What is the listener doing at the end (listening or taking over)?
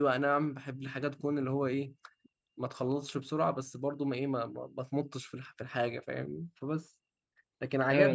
taking over